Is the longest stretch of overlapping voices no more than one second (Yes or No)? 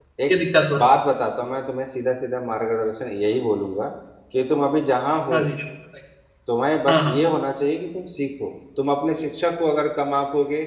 Yes